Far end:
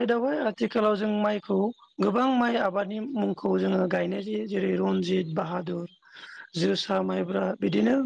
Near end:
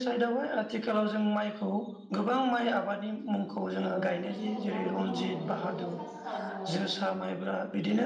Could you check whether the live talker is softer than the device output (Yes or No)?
Yes